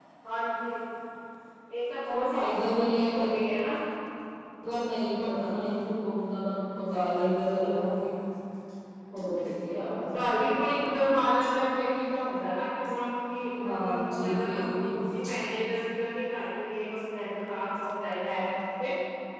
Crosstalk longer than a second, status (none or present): present